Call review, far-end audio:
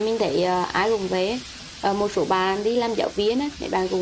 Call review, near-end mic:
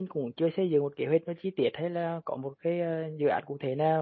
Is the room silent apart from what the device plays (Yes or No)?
No